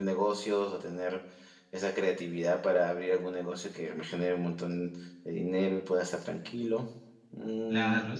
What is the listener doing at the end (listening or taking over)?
taking over